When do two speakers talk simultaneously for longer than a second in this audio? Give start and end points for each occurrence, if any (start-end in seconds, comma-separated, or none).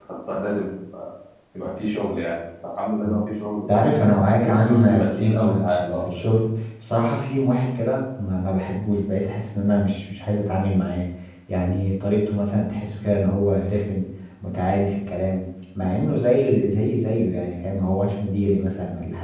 4.4-6.0